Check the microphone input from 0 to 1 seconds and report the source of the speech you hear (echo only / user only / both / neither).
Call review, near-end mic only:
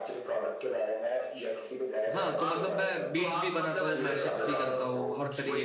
echo only